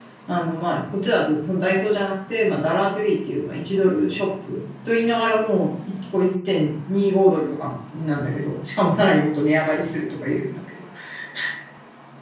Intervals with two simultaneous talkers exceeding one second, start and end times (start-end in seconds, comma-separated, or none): none